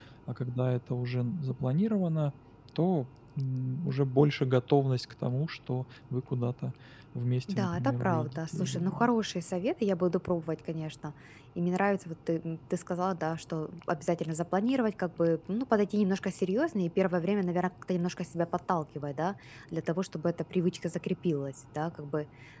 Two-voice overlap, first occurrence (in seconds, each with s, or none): 7.5 s